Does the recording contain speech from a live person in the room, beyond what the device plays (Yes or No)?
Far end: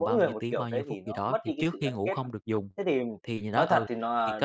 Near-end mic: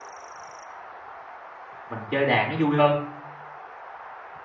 Yes